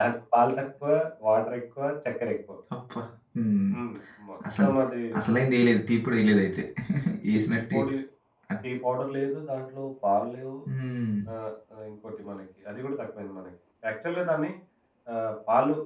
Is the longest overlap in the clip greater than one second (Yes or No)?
No